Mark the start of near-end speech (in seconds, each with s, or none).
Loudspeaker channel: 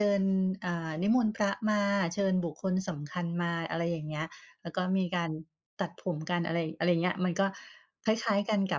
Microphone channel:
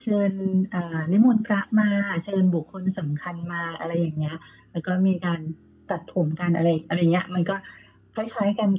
none